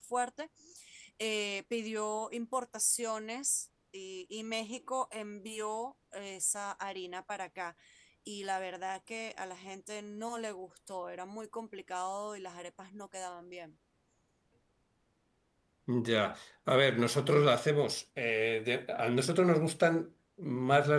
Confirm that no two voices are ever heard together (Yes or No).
Yes